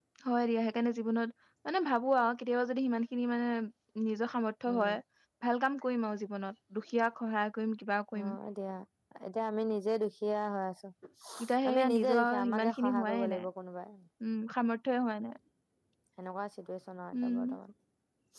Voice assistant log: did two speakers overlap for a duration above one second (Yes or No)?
Yes